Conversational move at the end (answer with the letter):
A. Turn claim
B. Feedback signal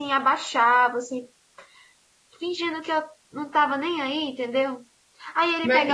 B